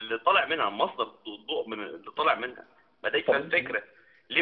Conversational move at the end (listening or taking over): listening